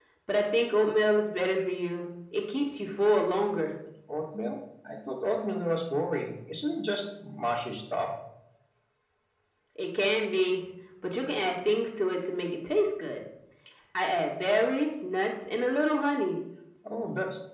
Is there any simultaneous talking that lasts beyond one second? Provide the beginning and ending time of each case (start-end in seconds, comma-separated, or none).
none